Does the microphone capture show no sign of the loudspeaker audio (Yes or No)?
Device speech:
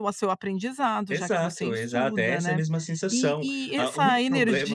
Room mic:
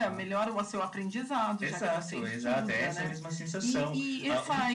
No